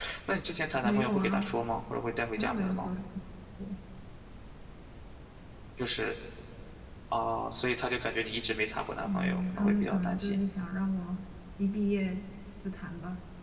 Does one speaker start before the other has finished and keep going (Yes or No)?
Yes